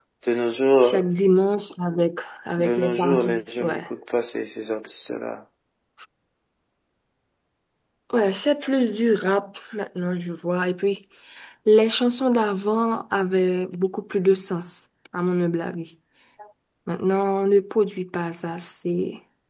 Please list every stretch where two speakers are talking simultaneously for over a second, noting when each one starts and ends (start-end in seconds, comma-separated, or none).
2.6-3.8